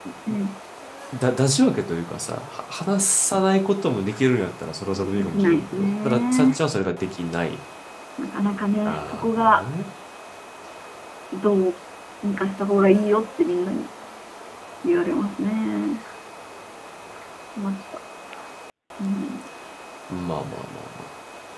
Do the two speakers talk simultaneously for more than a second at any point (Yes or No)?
Yes